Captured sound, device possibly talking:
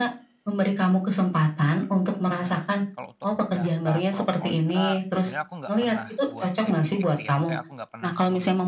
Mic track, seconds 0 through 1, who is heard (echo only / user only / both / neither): echo only